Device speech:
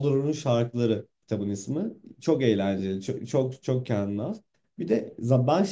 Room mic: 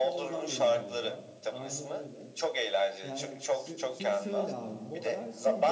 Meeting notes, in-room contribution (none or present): present